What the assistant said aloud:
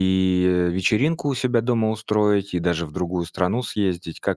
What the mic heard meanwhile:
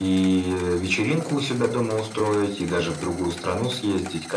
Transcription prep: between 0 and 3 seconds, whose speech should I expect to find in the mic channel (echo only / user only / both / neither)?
echo only